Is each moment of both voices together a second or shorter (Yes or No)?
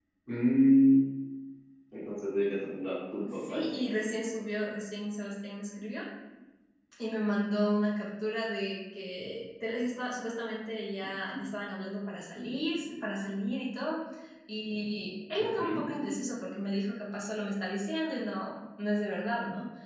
Yes